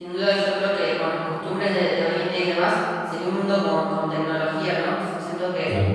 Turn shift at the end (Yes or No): No